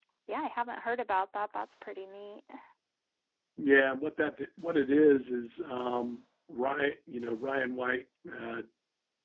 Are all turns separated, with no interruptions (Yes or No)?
Yes